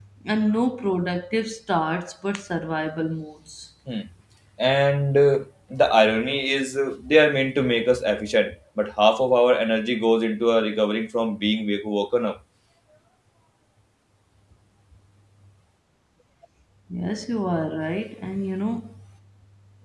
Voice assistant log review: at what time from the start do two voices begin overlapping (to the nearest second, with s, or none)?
none